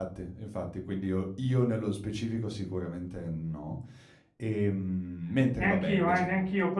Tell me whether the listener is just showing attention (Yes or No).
No